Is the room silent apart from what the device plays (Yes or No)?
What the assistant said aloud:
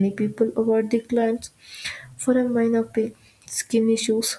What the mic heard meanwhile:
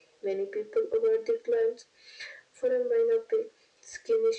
Yes